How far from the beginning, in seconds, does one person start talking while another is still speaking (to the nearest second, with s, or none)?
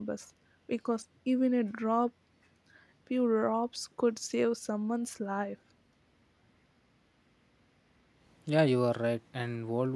none